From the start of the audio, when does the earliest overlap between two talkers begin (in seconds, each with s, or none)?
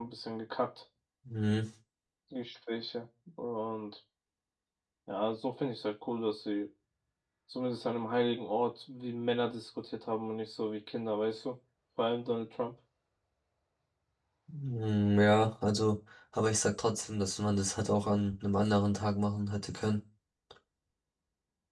none